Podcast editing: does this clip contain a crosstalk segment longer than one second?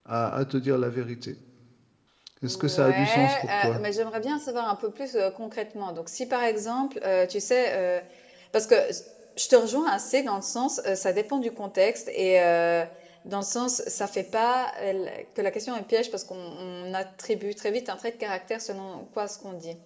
Yes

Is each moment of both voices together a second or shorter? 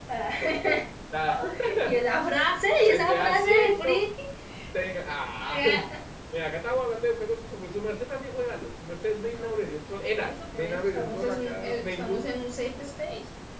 No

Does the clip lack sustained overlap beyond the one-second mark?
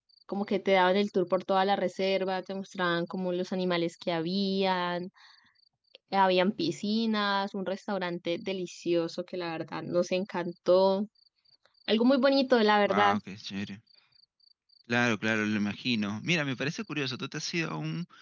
Yes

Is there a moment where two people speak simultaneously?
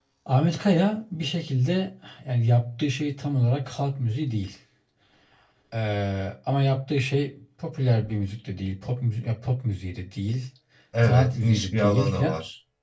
Yes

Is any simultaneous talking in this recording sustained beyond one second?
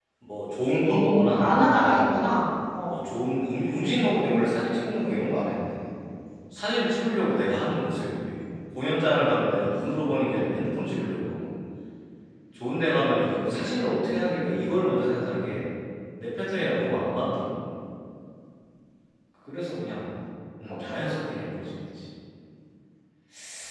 Yes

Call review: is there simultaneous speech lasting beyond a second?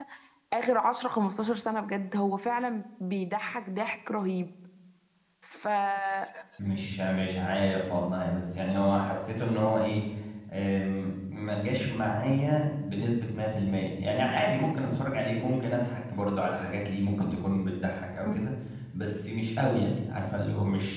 No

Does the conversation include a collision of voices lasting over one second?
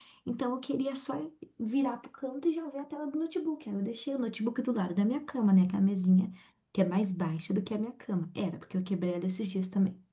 No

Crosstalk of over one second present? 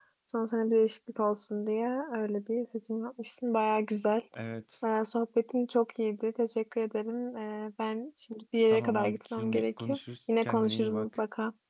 Yes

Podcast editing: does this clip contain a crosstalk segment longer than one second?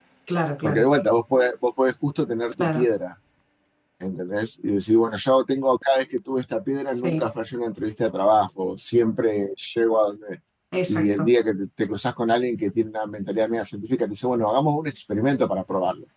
No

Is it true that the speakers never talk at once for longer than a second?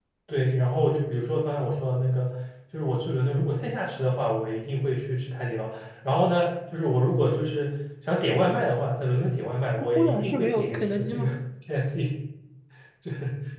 No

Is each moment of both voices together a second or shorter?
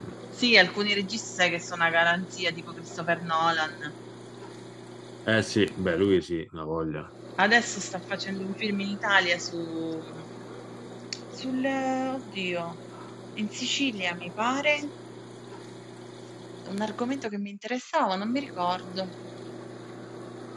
Yes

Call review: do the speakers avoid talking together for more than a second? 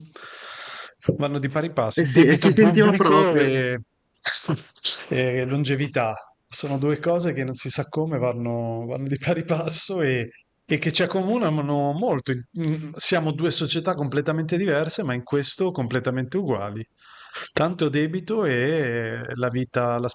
No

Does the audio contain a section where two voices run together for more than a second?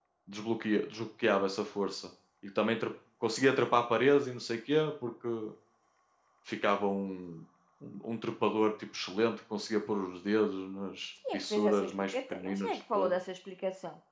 Yes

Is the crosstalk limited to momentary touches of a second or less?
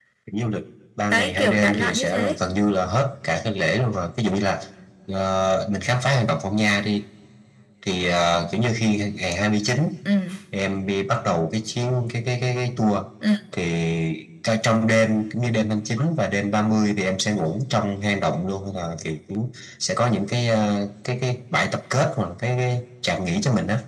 No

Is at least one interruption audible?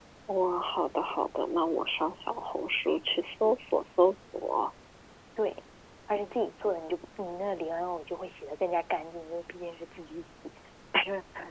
No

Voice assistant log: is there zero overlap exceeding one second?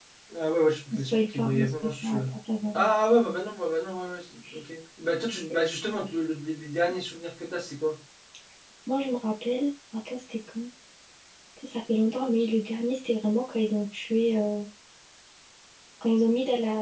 No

